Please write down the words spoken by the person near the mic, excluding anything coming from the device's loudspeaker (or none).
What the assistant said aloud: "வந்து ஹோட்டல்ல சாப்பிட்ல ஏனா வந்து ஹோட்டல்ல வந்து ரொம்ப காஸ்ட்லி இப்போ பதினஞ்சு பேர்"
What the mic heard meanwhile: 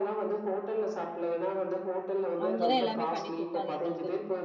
அவங்கதா எல்லாமே பண்ணி கொடுத்தாங்க எங்களுக்கு